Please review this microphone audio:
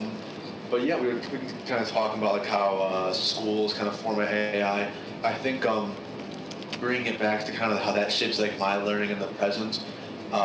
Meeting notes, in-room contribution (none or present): none